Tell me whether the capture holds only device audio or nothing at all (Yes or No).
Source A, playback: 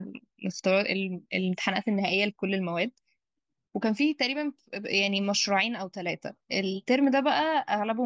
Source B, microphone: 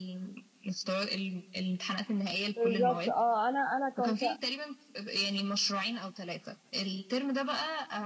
No